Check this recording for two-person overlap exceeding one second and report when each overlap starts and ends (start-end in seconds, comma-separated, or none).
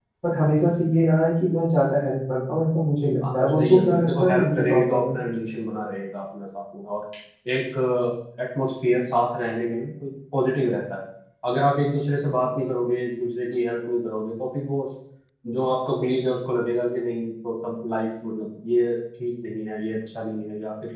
3.3-5.2